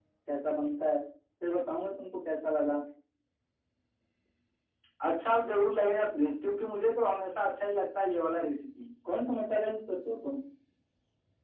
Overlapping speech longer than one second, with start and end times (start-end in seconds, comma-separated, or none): none